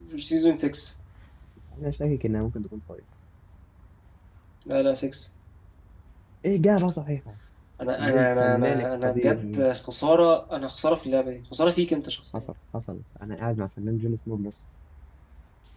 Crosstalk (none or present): present